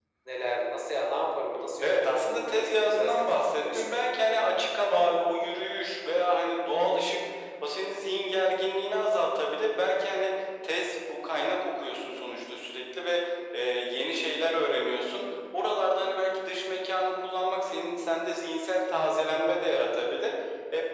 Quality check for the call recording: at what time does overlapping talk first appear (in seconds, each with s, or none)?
1.8 s